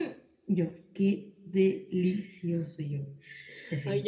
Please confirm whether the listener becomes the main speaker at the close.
Yes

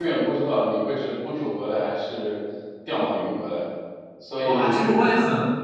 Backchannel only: No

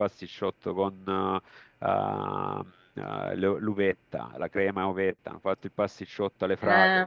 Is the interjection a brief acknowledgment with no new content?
Yes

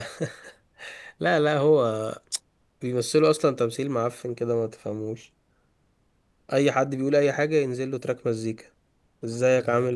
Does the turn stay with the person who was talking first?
Yes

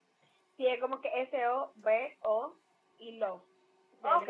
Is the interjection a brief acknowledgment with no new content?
No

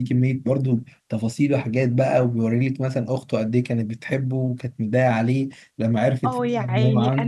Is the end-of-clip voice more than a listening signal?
Yes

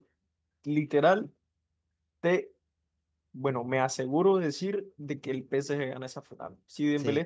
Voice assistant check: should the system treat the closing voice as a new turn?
No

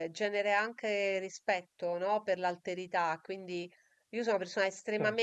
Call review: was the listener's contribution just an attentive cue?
Yes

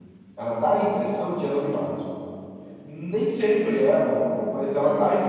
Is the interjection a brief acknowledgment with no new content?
Yes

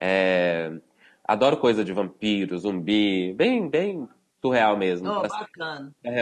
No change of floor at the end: No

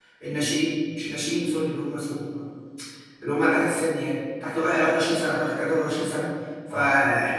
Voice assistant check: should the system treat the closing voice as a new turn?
No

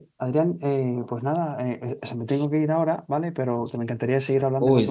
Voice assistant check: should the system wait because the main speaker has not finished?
No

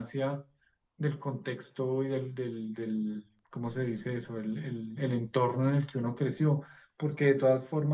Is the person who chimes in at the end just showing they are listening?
Yes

